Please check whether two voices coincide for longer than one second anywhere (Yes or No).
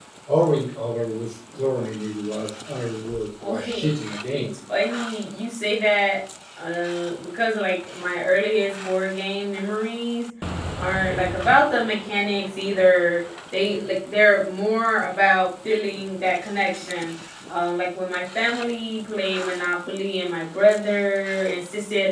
No